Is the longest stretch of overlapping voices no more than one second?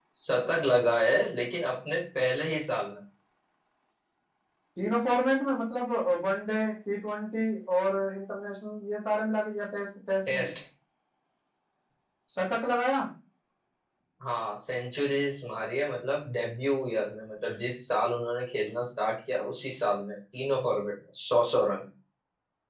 Yes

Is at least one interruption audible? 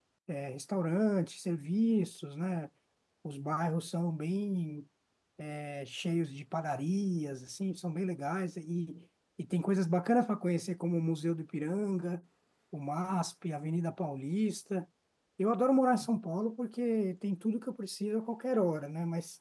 No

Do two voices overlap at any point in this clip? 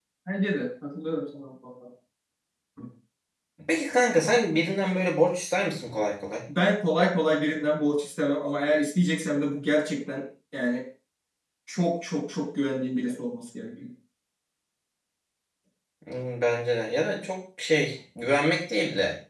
No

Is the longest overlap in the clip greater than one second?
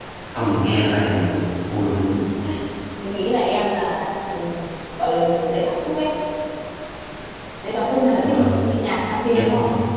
No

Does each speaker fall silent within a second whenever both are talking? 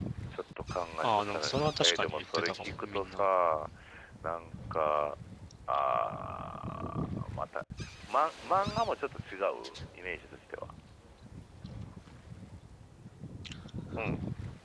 No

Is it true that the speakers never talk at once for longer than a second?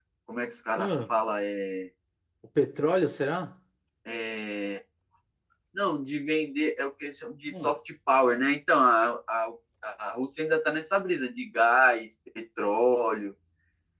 Yes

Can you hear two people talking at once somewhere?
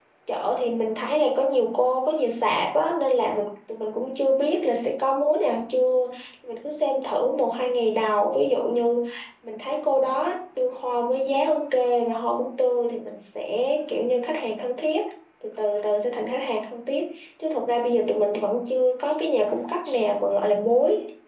No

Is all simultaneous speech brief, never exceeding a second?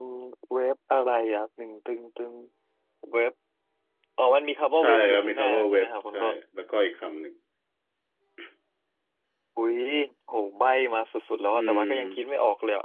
No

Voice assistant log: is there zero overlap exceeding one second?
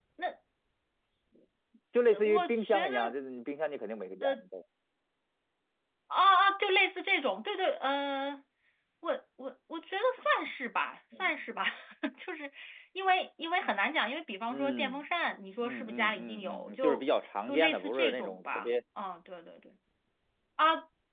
No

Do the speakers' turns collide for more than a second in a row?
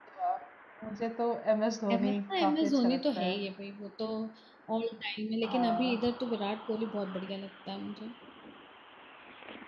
Yes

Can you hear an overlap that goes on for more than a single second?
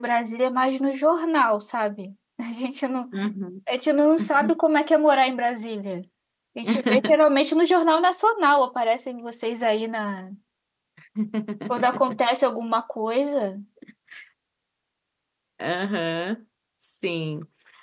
No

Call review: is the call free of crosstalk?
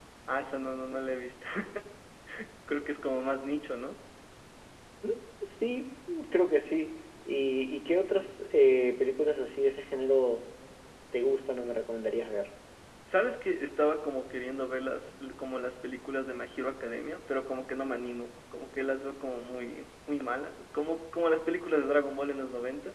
Yes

